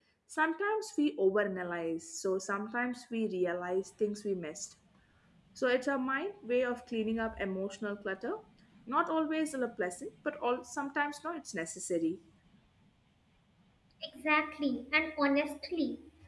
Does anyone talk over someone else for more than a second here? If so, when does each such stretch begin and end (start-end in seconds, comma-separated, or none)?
none